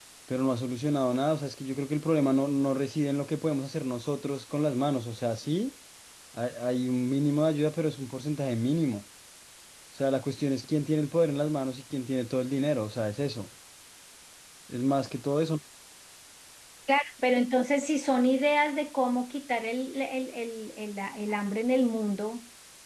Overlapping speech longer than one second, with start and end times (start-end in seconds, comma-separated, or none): none